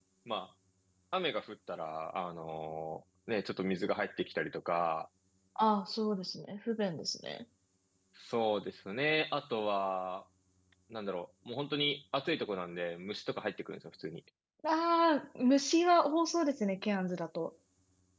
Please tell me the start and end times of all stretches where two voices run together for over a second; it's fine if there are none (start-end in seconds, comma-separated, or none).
none